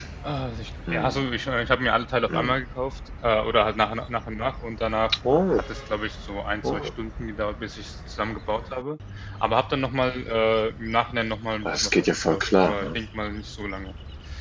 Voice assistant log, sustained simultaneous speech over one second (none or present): present